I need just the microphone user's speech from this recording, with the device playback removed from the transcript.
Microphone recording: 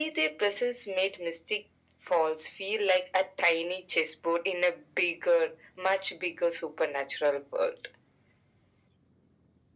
none

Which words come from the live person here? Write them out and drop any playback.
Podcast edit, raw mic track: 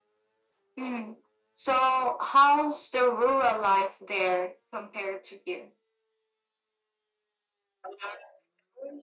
none

